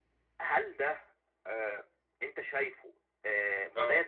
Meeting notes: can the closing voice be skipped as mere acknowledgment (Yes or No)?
Yes